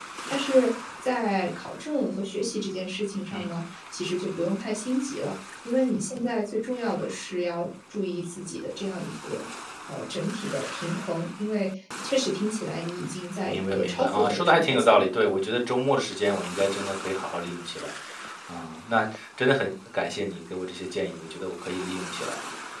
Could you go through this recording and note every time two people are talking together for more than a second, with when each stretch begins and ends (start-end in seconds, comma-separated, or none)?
13.4-15.1